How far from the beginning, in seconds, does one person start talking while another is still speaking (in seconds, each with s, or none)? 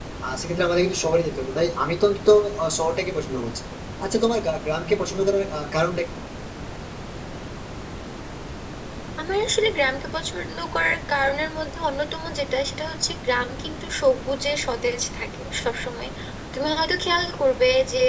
none